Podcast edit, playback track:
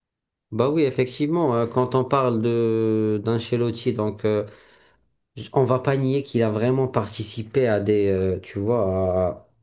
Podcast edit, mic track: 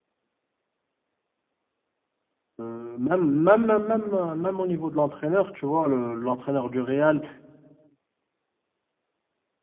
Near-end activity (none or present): present